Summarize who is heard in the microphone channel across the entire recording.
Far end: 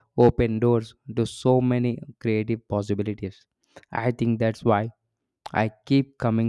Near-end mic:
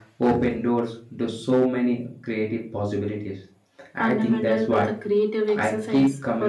both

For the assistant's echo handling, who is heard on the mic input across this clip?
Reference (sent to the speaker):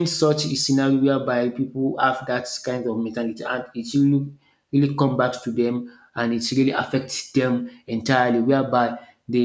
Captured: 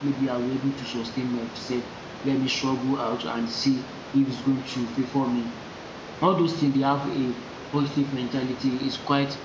user only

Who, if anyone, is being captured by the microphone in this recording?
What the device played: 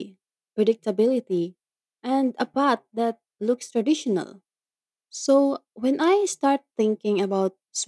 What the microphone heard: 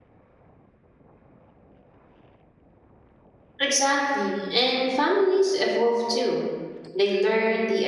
user only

